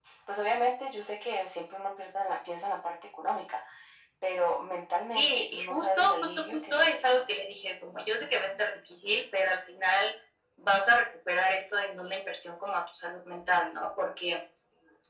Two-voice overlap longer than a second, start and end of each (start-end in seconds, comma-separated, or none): 5.1-7.0